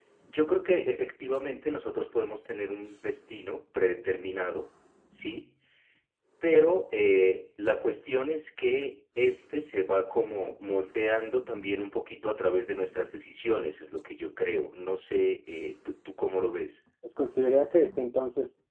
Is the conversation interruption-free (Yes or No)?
Yes